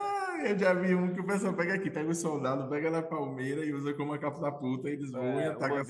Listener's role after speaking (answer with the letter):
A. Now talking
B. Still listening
A